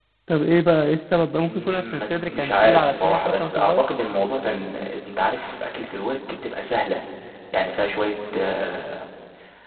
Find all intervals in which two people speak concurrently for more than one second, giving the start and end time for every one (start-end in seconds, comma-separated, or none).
1.5-3.8